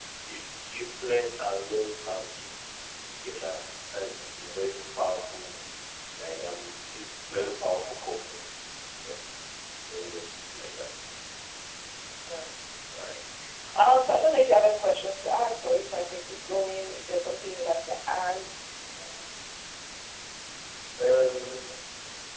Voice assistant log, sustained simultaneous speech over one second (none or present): none